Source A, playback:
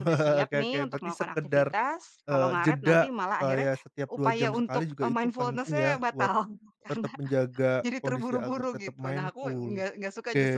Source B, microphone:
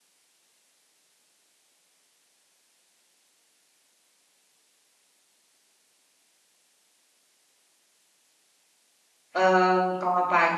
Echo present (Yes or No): No